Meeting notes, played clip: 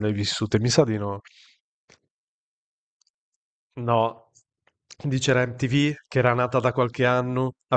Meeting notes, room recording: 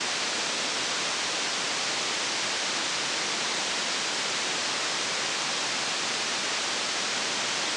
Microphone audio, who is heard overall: neither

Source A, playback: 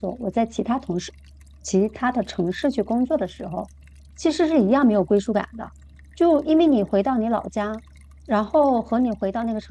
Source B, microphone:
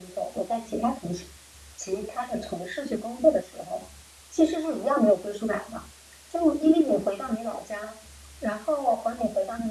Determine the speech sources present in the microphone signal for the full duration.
echo only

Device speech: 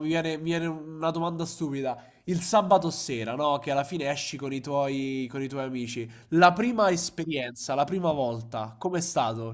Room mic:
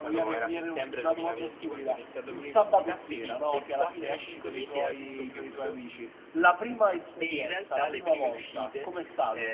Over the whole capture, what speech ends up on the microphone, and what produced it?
both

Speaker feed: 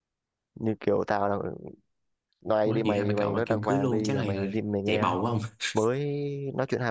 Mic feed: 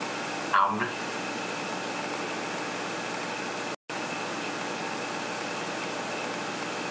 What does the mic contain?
user only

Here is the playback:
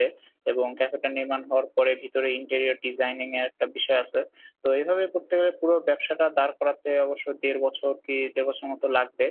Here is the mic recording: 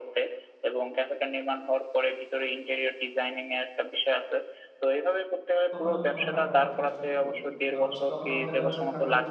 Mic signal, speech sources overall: both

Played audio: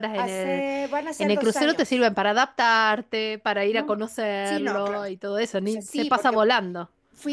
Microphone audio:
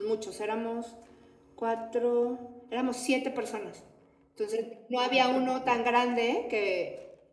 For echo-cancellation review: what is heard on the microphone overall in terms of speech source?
user only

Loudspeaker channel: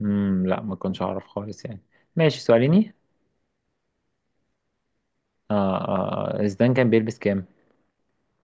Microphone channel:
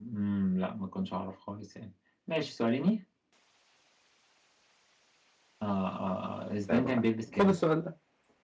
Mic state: both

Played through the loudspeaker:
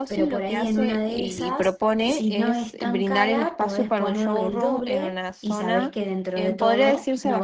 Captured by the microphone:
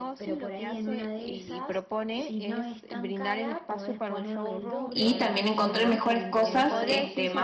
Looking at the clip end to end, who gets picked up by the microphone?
both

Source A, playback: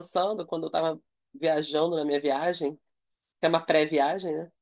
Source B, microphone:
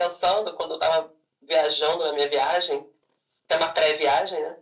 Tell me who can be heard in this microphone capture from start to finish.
echo only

